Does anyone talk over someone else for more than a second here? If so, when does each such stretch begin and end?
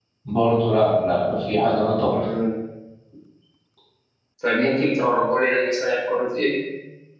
none

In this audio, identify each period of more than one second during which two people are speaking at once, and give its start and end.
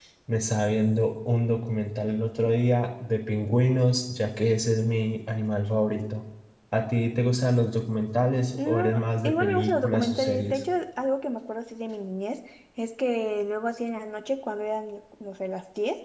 8.7-10.6

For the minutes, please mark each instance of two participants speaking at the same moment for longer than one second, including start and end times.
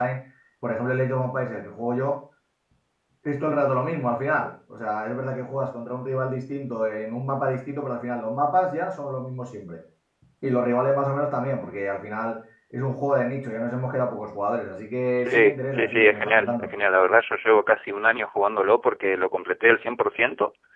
15.2-16.7

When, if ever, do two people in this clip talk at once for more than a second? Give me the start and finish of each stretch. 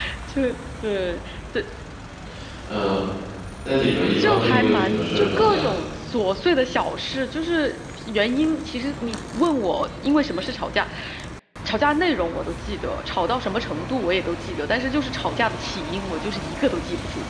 4.2-5.7

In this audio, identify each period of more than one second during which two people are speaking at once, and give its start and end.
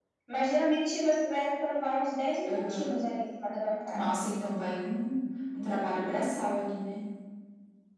none

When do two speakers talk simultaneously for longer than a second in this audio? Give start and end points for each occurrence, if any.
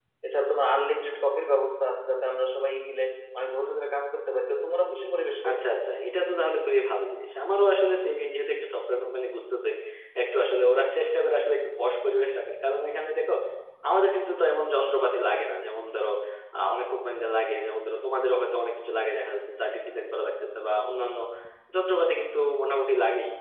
none

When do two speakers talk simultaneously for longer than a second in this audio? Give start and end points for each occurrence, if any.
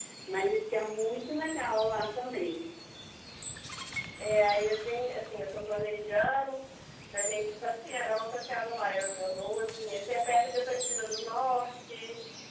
none

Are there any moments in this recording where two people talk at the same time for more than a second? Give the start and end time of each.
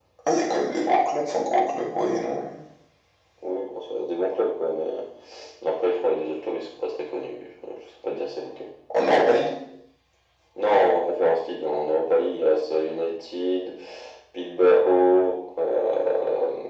none

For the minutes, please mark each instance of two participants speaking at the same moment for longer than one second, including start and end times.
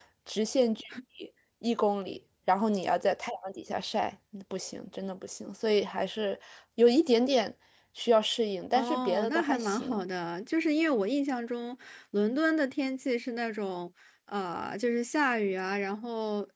8.8-10.0

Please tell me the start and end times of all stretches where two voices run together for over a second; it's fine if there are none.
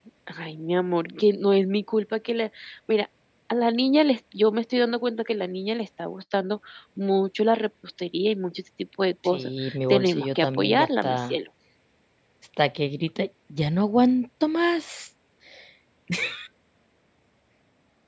9.2-11.4

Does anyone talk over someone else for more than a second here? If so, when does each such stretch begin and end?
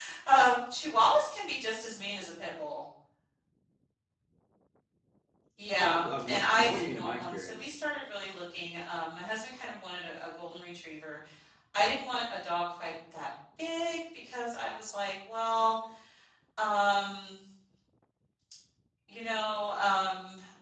5.8-7.8

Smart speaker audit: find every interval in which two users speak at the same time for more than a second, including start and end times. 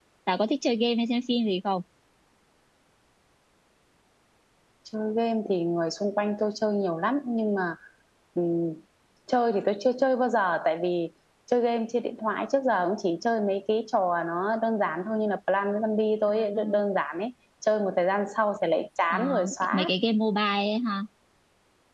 none

